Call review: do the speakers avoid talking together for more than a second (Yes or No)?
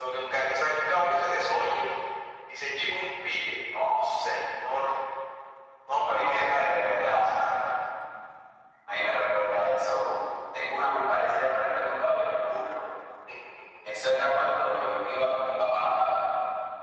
No